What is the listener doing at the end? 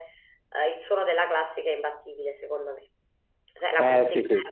taking over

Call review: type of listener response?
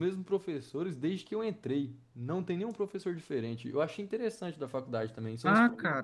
taking over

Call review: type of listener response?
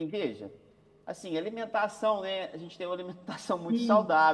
listening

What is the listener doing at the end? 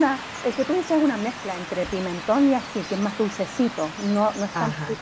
taking over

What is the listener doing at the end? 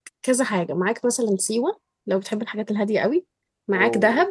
listening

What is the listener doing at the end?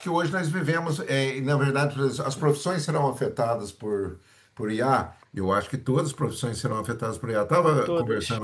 listening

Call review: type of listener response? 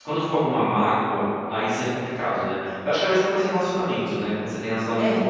listening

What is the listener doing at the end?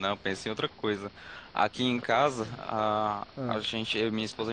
listening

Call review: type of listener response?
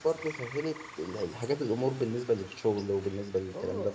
taking over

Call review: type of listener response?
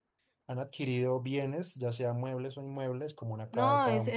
taking over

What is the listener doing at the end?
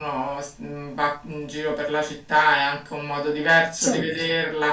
listening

